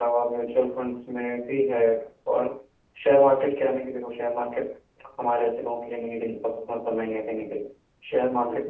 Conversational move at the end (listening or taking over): listening